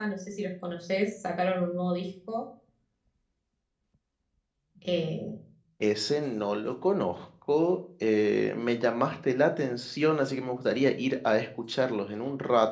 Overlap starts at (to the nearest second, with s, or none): none